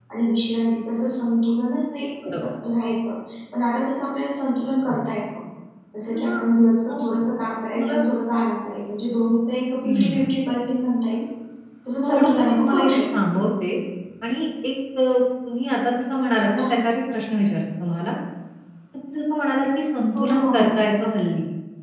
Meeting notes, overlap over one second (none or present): present